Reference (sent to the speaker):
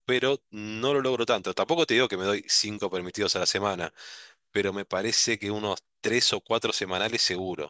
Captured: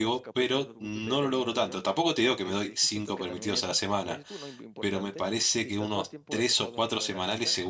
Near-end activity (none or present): present